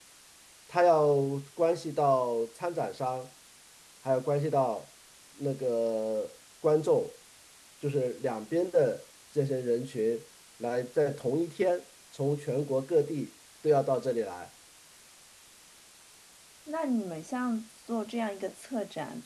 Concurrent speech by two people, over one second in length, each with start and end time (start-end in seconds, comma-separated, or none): none